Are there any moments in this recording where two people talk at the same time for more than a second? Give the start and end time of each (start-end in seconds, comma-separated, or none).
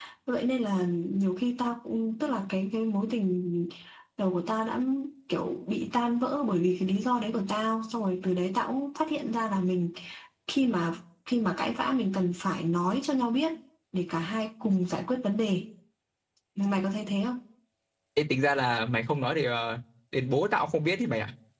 none